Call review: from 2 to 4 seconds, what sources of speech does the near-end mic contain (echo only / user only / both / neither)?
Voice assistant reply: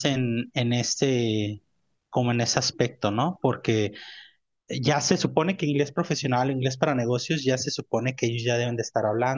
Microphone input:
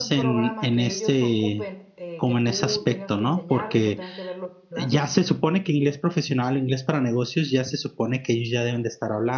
both